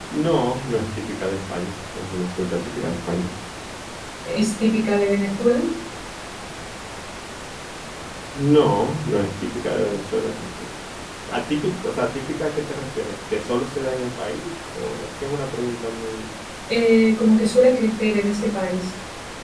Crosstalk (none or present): none